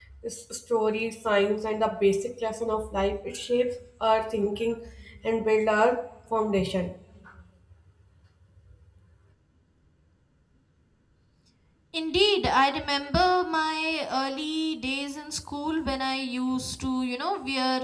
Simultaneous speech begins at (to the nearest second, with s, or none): none